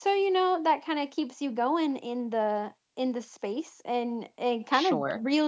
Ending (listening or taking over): listening